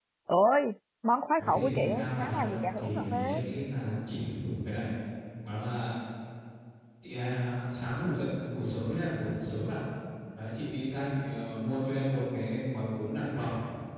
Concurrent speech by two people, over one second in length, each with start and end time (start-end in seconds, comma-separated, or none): 1.4-3.4